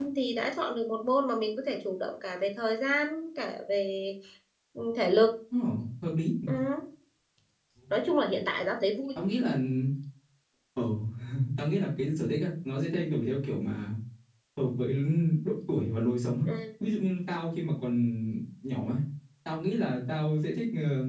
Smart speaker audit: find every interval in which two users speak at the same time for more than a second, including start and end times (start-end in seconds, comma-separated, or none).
none